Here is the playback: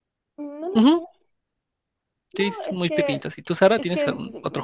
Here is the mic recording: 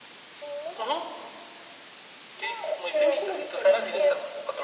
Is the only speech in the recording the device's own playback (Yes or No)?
No